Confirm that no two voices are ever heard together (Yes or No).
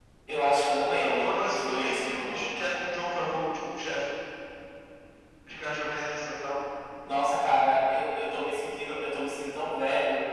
No